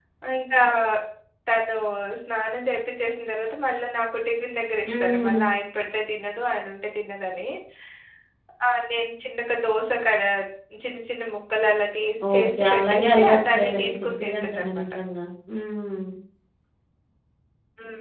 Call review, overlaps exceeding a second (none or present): present